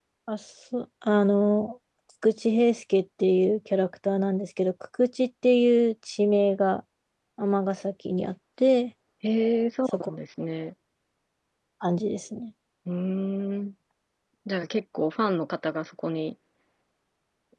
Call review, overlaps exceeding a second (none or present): none